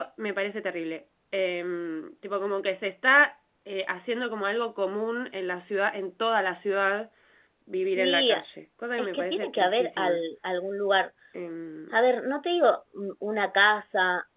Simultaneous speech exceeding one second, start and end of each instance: 9.0-10.2

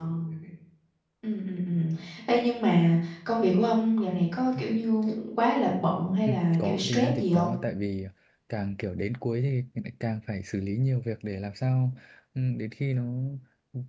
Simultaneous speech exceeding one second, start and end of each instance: 6.2-7.5

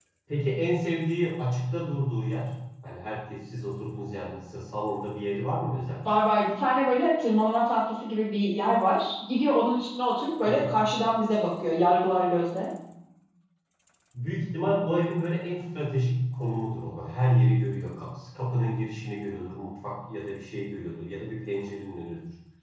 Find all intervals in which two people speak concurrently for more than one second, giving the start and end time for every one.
none

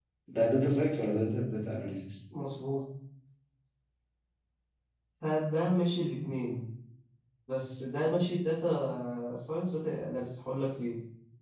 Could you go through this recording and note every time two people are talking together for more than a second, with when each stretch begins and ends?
none

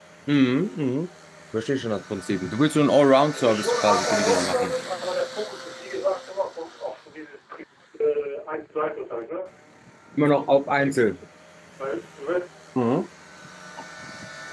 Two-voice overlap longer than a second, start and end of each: 3.3-4.7

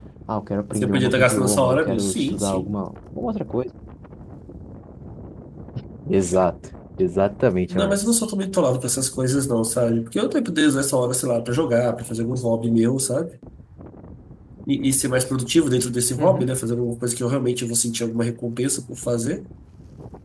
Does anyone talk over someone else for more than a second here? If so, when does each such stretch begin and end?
0.7-2.8

